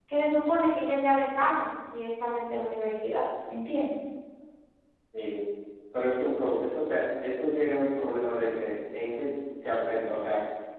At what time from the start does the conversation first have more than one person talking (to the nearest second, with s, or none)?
none